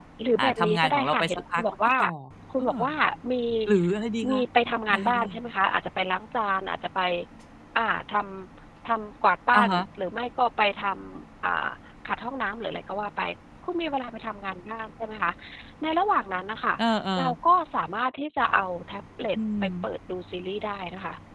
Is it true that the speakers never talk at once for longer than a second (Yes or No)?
No